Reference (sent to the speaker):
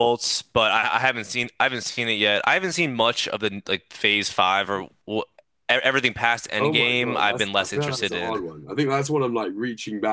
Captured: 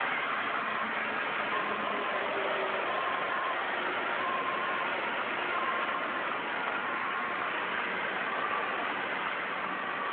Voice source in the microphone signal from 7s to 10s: neither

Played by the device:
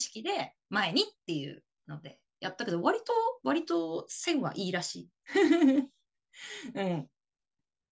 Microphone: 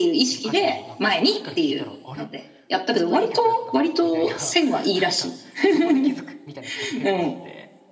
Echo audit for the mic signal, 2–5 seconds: both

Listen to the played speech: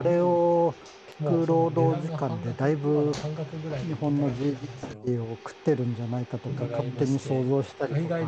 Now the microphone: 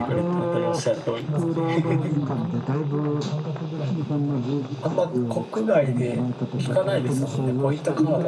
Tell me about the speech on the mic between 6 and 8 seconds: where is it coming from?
both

